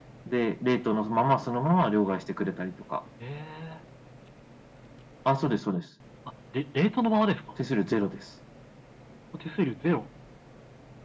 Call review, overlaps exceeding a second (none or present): none